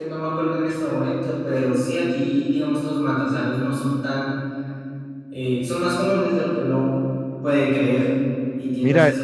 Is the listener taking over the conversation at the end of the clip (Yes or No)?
No